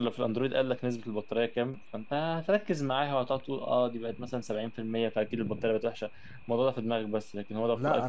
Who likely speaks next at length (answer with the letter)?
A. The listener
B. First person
A